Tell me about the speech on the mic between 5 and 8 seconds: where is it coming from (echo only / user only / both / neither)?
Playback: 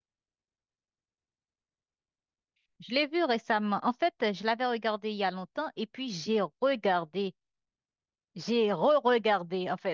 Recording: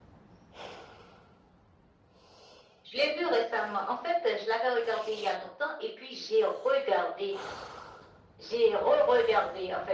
echo only